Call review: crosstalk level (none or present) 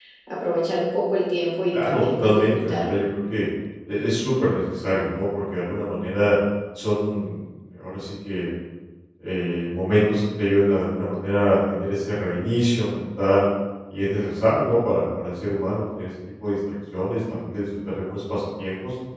present